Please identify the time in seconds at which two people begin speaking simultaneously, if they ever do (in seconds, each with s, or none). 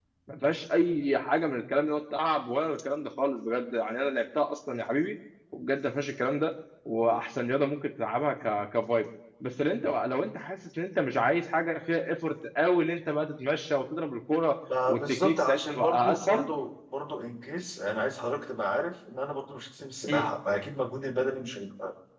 14.7 s